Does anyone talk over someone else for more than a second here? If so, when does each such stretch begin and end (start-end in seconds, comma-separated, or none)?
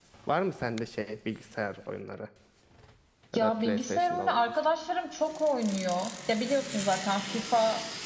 3.4-4.6